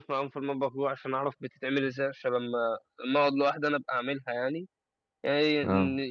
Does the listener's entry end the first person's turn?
No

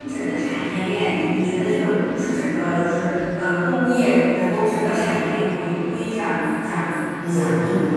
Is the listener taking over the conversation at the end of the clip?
Yes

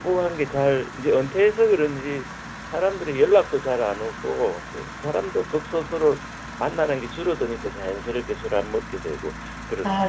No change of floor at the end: No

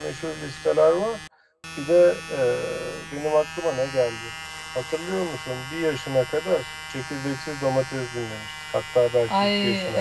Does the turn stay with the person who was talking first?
No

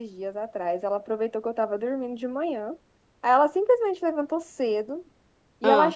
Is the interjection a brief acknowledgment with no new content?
Yes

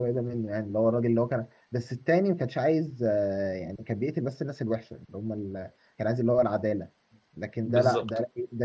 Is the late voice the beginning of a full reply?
No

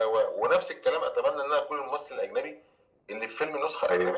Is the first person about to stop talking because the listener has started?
No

